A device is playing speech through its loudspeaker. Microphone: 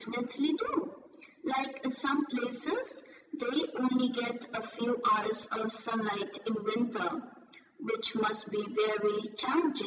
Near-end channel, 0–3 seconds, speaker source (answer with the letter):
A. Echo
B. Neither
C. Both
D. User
A